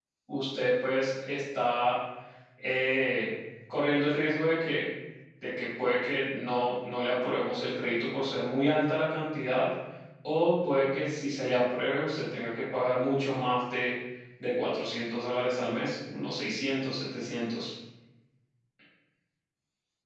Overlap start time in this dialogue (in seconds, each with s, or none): none